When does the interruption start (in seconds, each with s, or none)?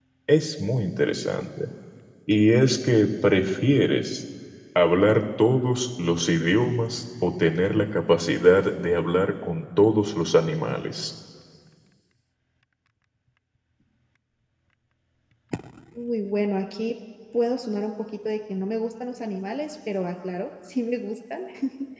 none